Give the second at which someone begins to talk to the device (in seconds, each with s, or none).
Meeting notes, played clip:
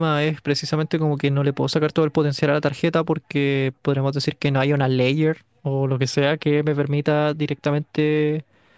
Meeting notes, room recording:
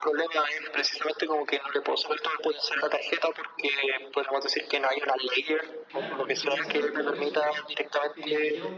5.9 s